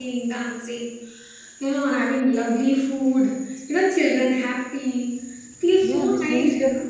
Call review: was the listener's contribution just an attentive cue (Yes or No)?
No